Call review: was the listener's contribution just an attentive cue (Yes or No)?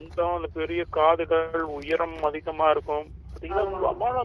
Yes